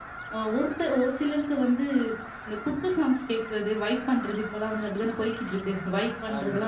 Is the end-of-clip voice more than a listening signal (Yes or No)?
No